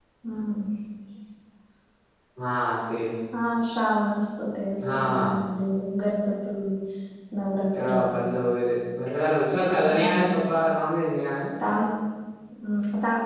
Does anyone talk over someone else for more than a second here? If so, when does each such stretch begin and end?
none

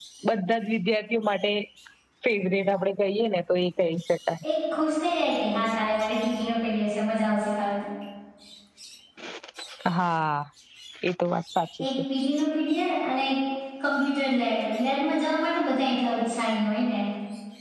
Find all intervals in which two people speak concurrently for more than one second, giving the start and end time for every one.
none

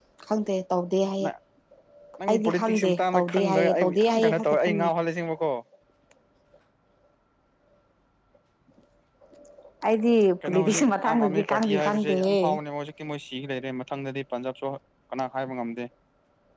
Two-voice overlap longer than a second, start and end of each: 2.3-4.9, 10.4-12.4

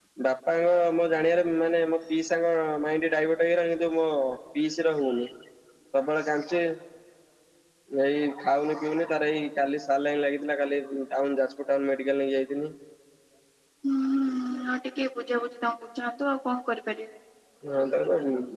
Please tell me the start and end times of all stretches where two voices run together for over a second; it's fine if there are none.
none

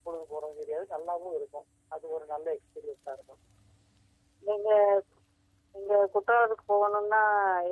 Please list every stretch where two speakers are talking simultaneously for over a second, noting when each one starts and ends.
none

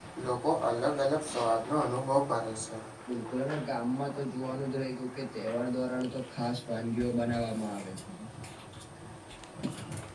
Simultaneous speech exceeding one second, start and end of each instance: none

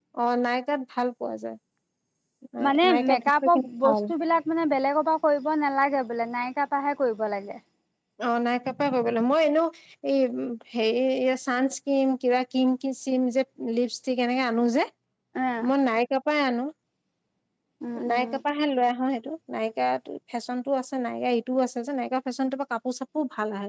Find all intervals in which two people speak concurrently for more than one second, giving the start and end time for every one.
2.6-4.0

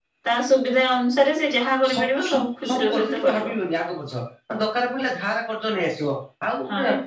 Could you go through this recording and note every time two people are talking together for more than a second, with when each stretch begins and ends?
1.9-3.5

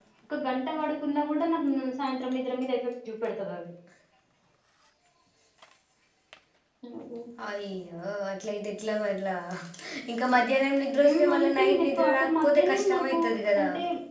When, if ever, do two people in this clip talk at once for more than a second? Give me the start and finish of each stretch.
11.1-13.2

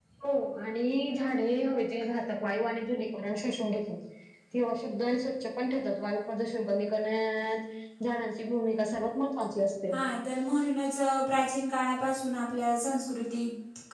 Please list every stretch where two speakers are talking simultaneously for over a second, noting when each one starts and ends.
none

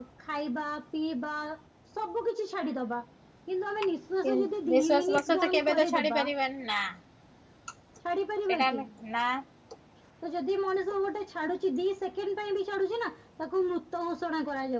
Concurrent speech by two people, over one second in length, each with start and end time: 4.7-6.2

